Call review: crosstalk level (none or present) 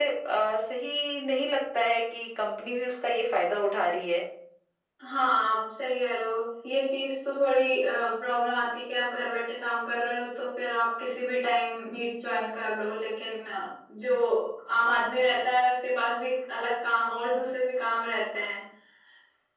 none